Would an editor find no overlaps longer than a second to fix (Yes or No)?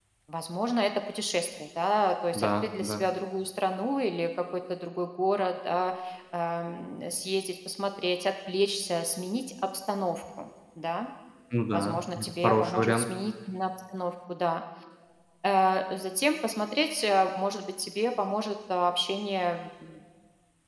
No